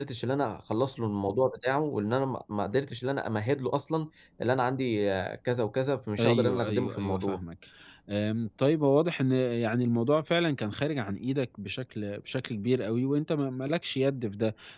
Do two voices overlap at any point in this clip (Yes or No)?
Yes